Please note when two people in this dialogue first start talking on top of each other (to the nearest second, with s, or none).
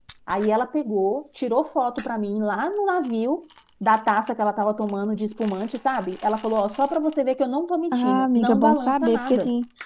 8 s